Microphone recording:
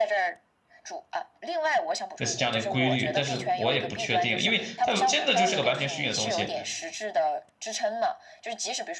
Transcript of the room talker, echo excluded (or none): 类似这样的一个规律，但是我也不确定，因为它真的就是个完全虚拟的东西，